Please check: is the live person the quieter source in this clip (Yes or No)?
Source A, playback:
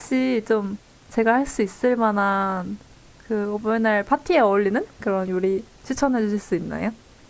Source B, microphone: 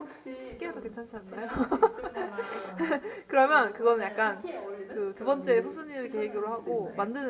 No